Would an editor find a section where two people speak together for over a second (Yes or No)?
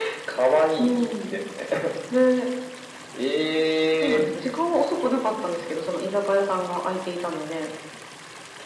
No